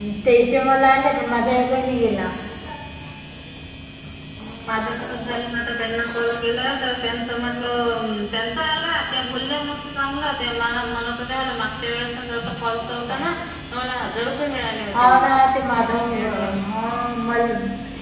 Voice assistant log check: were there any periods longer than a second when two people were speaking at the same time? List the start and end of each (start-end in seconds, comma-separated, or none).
none